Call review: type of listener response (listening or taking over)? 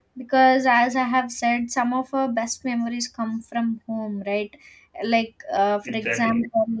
listening